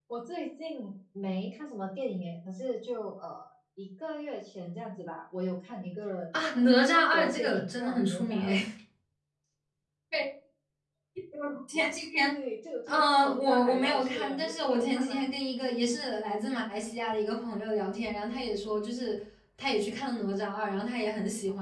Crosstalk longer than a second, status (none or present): present